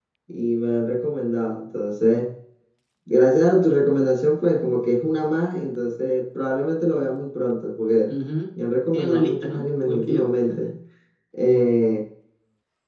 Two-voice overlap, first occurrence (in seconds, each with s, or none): 8.9 s